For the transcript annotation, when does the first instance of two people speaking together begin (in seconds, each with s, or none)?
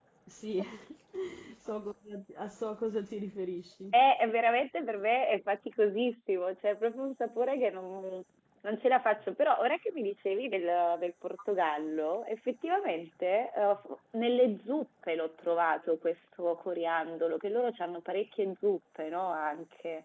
none